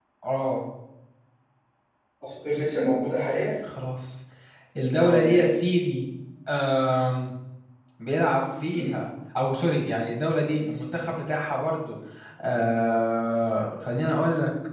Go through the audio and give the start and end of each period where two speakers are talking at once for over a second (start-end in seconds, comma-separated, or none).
none